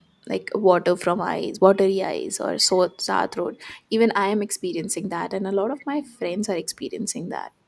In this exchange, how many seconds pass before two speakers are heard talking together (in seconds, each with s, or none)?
none